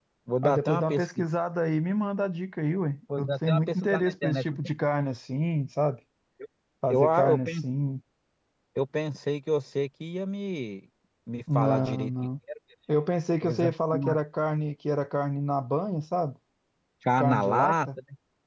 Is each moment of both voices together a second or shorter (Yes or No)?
No